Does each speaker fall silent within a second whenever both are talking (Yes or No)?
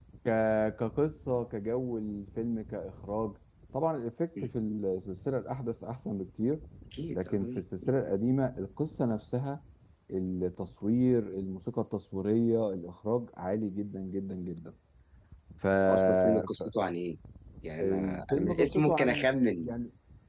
No